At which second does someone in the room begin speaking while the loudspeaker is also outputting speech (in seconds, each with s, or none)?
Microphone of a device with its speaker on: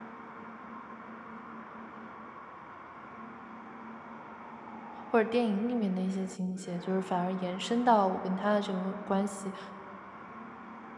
5.1 s